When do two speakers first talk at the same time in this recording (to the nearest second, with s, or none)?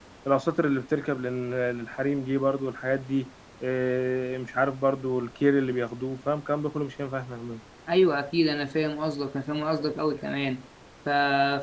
none